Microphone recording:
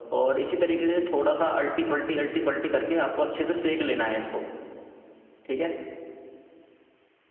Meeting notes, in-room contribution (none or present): none